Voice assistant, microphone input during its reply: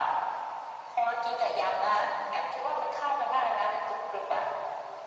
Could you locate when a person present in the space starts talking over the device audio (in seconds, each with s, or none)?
none